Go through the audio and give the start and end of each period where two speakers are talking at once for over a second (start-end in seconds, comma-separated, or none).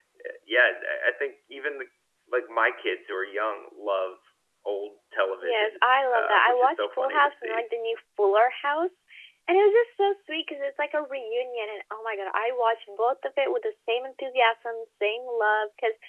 5.4-7.7